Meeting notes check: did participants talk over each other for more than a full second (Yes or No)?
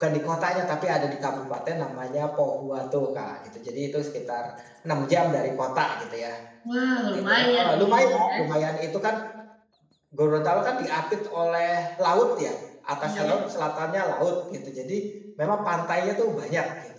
Yes